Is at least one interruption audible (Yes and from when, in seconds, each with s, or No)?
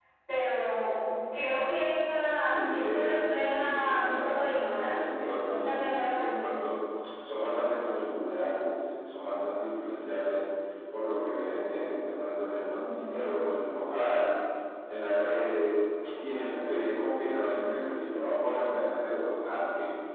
Yes, from 2.4 s